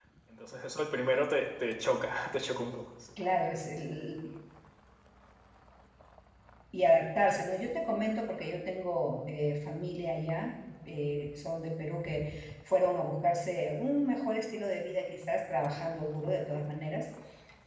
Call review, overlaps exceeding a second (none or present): none